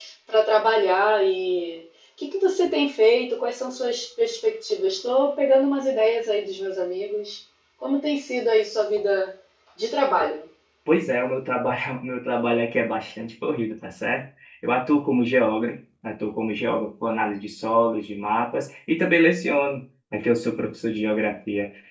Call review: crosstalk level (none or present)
none